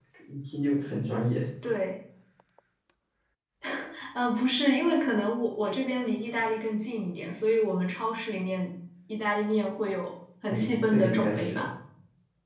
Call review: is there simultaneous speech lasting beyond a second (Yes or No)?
Yes